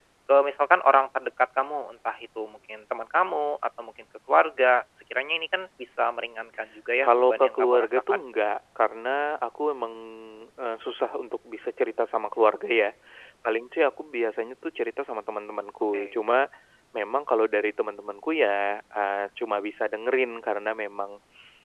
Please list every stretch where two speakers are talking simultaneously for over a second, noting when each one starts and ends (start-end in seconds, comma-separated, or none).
7.0-8.2